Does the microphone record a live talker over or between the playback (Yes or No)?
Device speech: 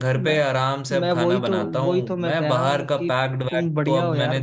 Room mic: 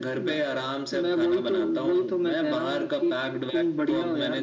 No